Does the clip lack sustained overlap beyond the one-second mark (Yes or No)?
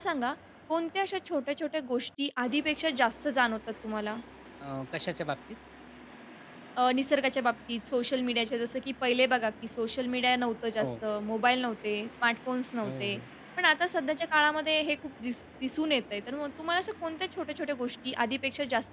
Yes